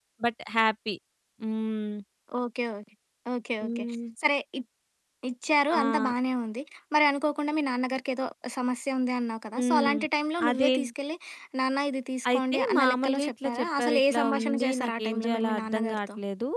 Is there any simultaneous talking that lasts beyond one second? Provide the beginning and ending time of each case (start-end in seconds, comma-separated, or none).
12.3-16.0